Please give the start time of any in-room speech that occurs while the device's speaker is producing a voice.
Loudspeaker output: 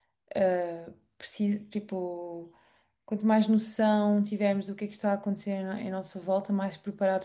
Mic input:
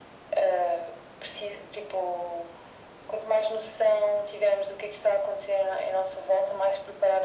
none

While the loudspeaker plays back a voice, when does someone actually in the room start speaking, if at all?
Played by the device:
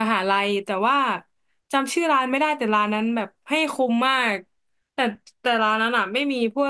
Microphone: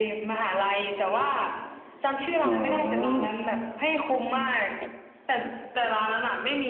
2 s

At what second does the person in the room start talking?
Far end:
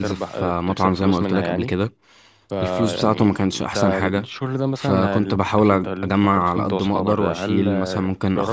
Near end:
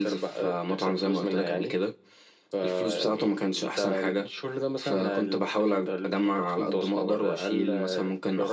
none

